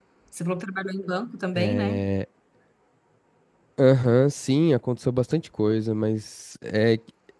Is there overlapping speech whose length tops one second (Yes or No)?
No